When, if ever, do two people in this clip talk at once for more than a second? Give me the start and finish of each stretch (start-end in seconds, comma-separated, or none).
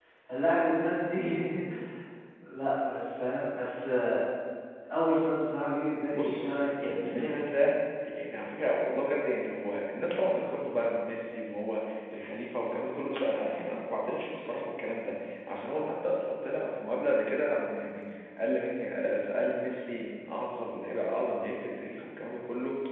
6.1-7.3